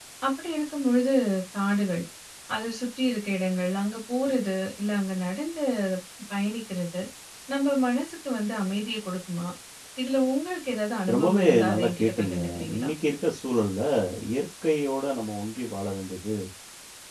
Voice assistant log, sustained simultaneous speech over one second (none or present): present